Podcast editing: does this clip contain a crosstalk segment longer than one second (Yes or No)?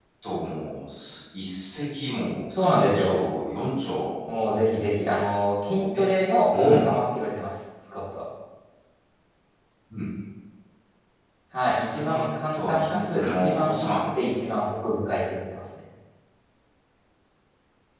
Yes